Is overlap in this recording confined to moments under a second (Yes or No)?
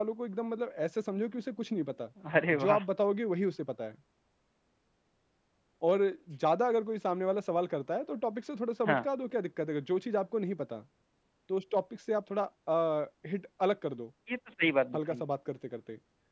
Yes